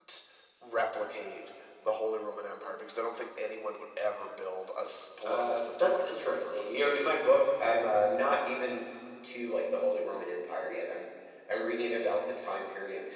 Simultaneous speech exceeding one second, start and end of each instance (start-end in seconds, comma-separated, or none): 5.2-6.8